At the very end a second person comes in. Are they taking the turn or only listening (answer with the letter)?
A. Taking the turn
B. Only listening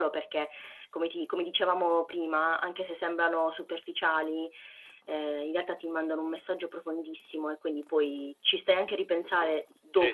A